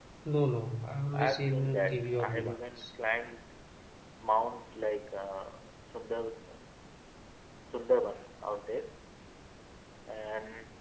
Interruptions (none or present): present